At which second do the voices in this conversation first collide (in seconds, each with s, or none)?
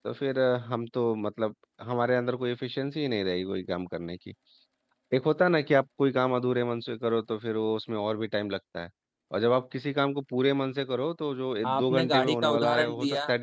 11.6 s